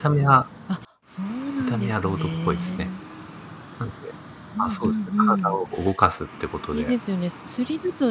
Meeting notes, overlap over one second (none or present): present